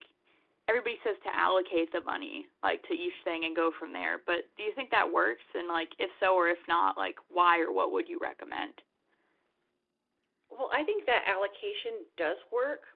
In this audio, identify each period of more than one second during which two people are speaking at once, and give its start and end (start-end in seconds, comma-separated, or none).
none